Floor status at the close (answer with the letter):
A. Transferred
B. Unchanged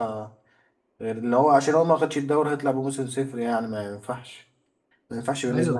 A